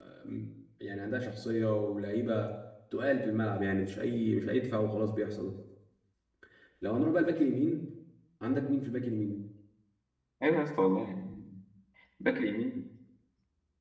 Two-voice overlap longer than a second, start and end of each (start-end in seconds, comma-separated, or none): none